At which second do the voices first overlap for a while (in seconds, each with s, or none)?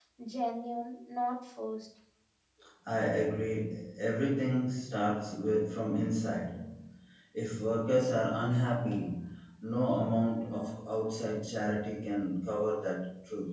none